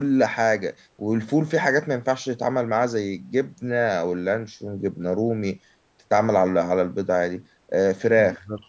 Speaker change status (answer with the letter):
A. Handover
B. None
B